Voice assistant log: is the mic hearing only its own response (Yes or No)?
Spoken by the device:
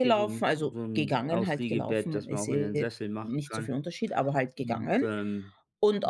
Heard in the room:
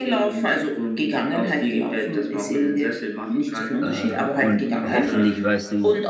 No